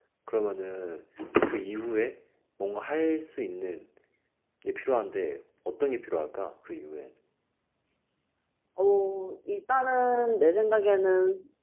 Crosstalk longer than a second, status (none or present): none